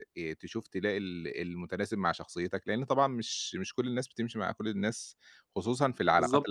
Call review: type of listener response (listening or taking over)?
taking over